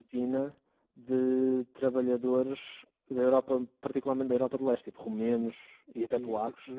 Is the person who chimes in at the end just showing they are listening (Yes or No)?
No